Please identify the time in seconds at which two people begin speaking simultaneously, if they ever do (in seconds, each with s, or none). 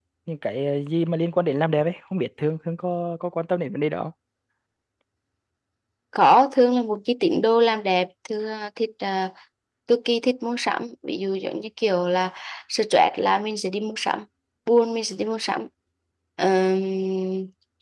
none